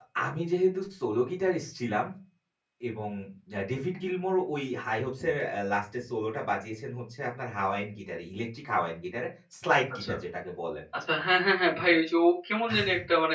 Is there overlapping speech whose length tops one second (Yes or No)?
No